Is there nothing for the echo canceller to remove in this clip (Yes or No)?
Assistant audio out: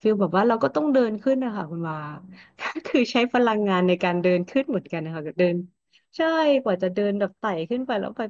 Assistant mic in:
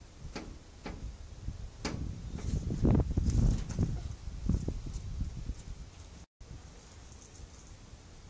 Yes